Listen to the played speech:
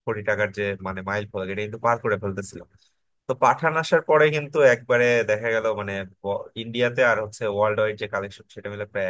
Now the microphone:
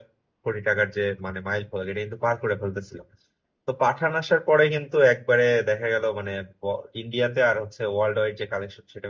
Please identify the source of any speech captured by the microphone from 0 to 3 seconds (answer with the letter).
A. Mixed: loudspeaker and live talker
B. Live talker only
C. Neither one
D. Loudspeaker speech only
D